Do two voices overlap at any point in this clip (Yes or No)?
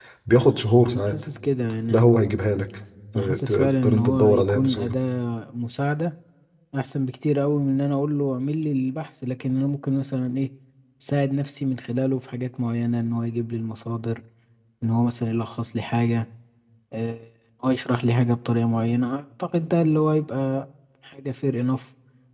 Yes